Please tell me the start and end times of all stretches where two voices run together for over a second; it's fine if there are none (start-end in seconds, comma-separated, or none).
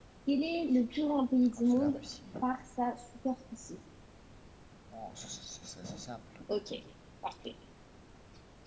none